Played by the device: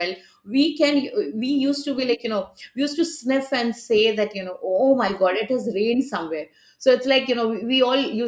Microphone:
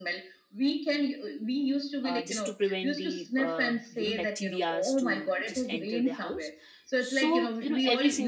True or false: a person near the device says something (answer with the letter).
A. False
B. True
B